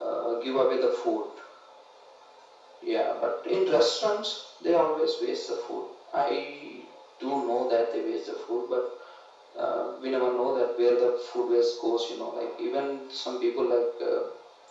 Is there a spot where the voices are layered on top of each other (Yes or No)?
No